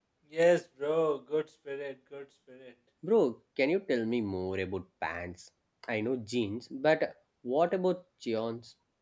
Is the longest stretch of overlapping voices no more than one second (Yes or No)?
Yes